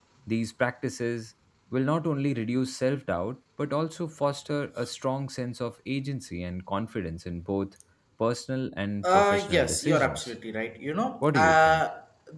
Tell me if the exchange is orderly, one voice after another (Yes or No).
No